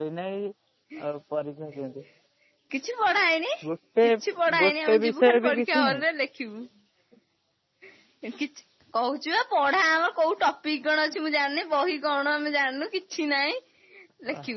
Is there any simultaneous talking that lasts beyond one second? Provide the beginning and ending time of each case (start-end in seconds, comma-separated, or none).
4.6-6.0